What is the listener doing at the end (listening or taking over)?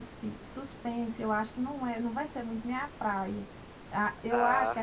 listening